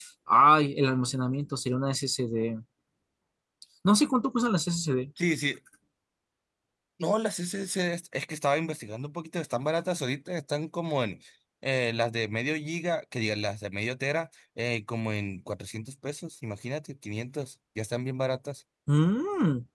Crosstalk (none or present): none